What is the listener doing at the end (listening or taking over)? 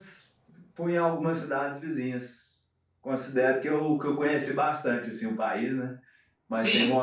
listening